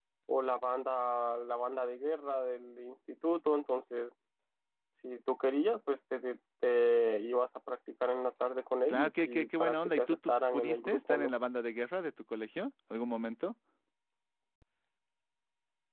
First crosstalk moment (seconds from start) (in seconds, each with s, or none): 8.9 s